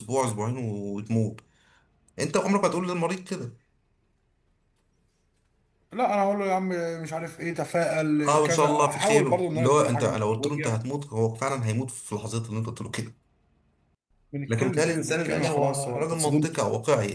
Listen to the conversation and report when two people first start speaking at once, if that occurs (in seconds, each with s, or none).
8.3 s